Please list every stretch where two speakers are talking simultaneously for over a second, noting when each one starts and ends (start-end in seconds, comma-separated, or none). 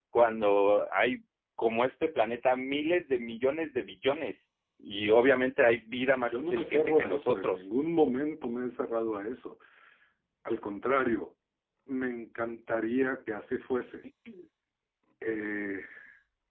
6.1-7.6